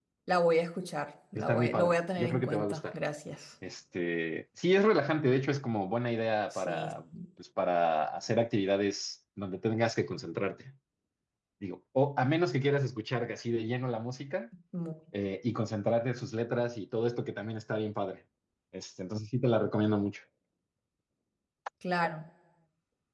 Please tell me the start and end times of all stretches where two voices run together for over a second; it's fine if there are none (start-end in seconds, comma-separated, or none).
1.4-2.8